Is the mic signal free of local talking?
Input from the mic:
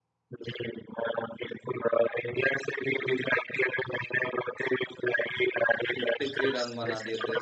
No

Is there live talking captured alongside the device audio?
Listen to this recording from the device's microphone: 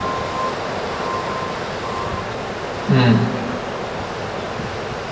Yes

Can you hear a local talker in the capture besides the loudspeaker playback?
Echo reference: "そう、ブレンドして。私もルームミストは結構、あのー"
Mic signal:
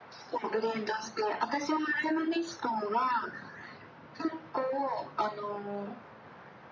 No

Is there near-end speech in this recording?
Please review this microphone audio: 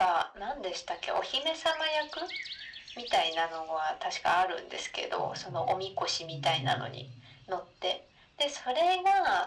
Yes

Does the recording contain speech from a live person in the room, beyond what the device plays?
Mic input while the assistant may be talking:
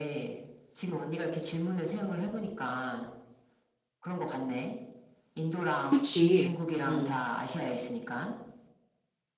Yes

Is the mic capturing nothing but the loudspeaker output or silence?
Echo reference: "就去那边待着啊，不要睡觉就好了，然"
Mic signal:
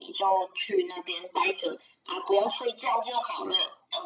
Yes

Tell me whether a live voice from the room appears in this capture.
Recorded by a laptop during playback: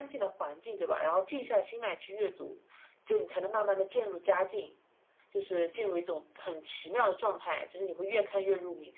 No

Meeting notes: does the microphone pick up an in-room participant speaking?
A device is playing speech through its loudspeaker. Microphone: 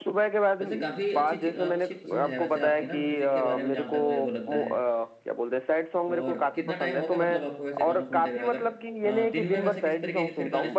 Yes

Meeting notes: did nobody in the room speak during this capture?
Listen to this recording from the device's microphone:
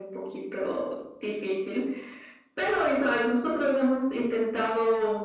Yes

